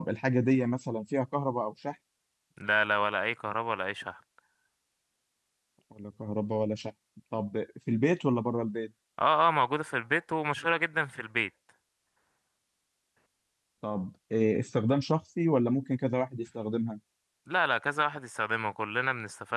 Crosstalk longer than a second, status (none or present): none